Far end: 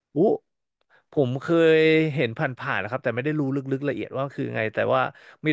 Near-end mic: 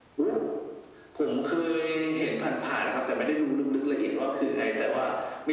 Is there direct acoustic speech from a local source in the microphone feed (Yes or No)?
No